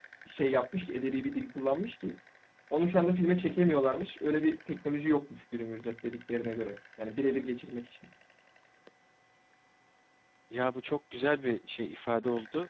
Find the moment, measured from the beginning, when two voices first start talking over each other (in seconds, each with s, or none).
none